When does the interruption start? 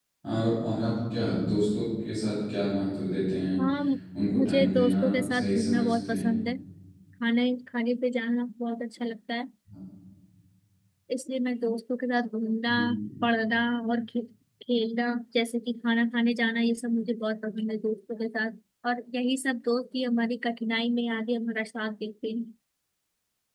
4.4 s

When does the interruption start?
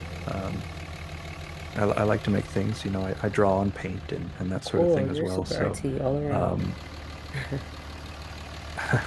4.4 s

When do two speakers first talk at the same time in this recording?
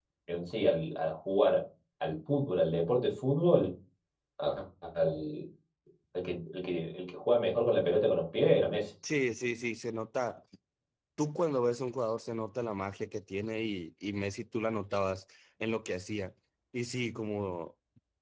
none

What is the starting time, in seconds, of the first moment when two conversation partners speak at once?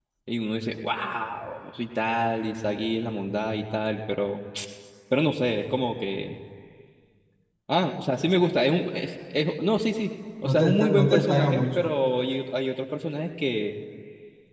10.4 s

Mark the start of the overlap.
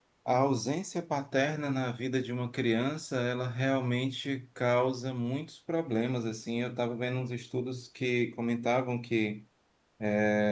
none

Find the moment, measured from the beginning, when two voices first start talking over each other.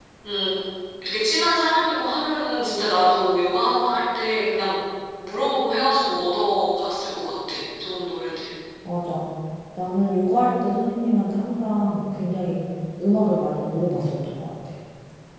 none

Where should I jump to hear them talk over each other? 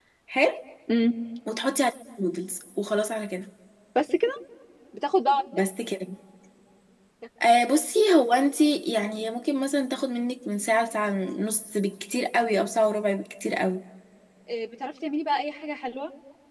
none

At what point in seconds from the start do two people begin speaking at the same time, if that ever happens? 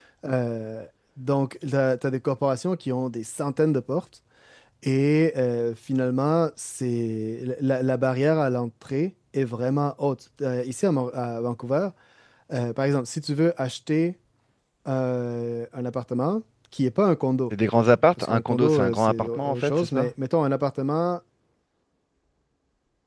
17.5 s

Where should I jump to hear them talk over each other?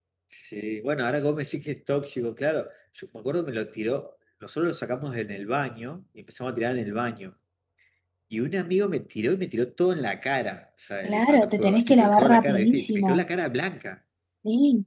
11.0 s

